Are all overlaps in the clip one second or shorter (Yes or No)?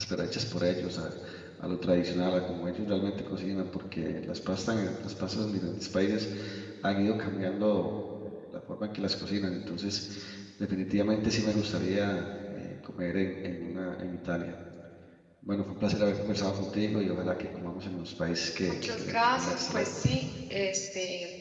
No